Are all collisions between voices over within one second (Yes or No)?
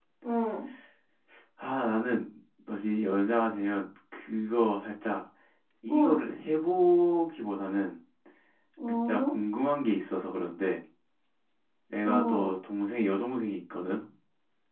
Yes